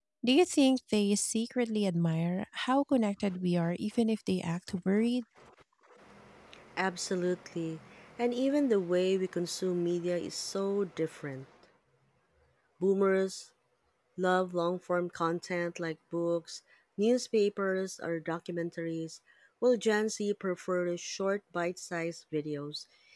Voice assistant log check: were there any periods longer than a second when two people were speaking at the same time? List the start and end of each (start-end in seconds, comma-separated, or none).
none